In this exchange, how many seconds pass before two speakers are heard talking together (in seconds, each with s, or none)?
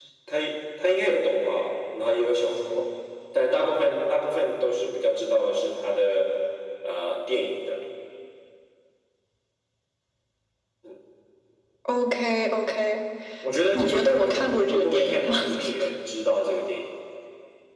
13.7 s